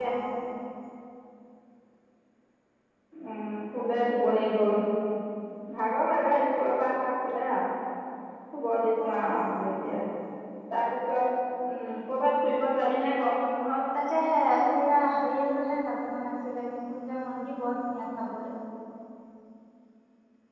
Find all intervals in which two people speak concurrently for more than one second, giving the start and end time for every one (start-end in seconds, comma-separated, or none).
none